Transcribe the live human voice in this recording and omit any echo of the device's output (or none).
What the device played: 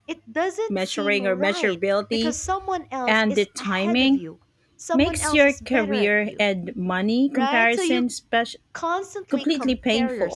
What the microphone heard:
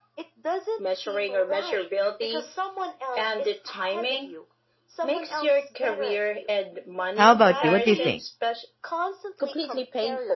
How about you? What do you think?